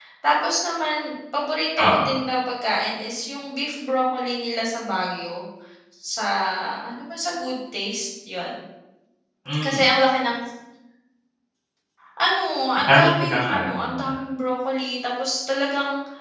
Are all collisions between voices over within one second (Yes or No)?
No